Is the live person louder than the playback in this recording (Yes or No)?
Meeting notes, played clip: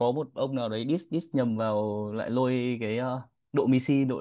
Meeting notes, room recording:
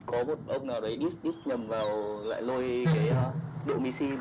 Yes